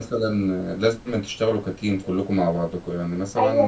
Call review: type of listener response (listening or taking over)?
taking over